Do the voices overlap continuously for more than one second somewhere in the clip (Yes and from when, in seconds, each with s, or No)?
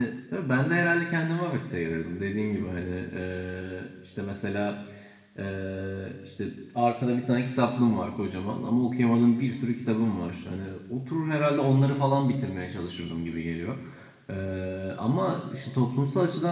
No